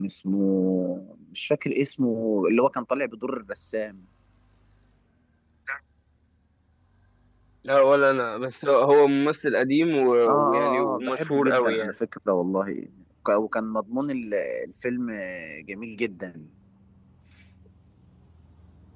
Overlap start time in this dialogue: 10 s

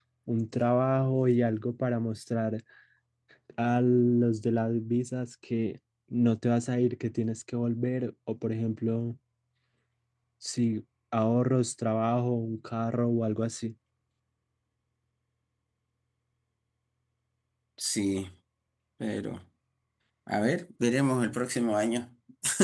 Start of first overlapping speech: none

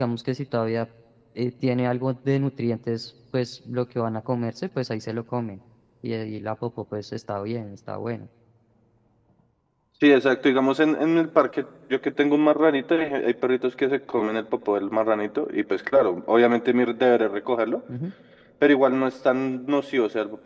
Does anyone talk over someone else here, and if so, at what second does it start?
none

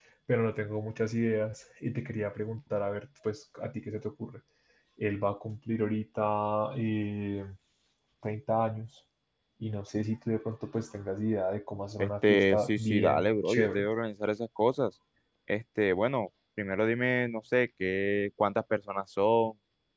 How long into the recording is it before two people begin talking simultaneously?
12 s

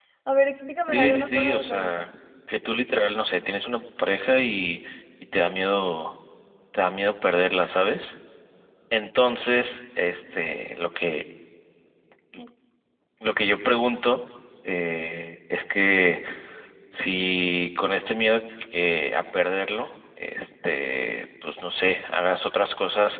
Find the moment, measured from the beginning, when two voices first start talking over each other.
1 s

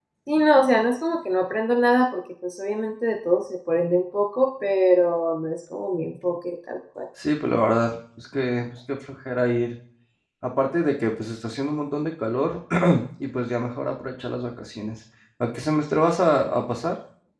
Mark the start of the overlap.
none

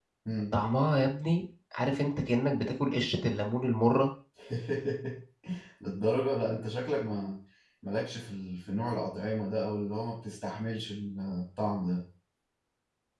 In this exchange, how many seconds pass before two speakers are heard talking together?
none

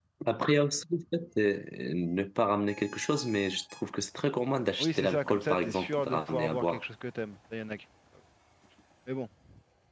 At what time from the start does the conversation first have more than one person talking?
5 s

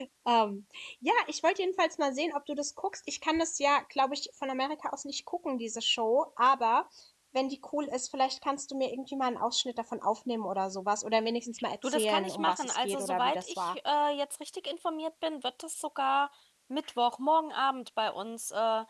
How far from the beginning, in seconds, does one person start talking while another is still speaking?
12 s

